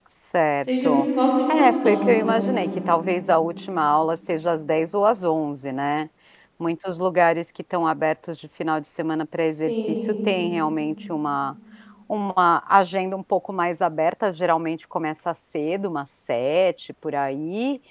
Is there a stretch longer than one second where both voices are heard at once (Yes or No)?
Yes